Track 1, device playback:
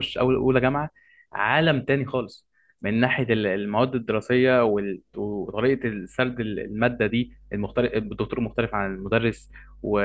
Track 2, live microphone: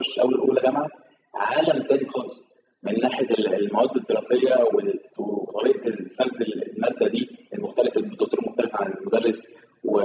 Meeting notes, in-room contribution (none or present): none